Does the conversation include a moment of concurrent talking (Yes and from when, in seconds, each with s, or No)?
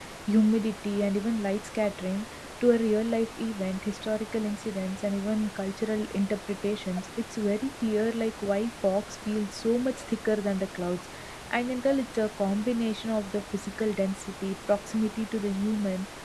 No